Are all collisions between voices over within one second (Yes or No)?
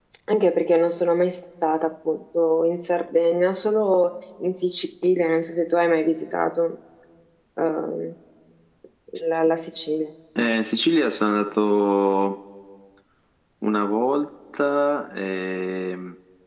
Yes